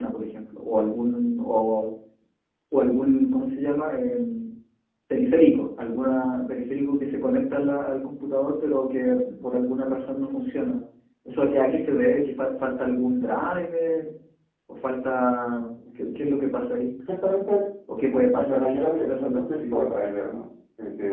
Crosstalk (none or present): present